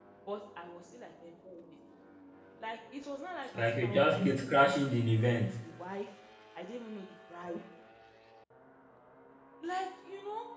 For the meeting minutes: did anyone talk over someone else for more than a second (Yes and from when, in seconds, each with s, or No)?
Yes, from 3.5 s